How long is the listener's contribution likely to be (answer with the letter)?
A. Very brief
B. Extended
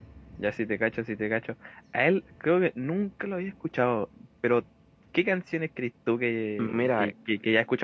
A